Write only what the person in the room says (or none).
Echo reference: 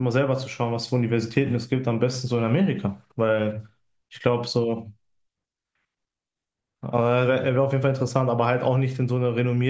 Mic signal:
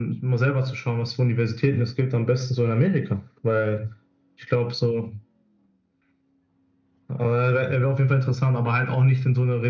none